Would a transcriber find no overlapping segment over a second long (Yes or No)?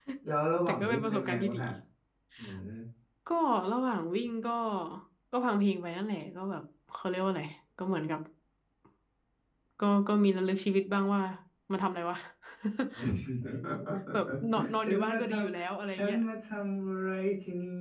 No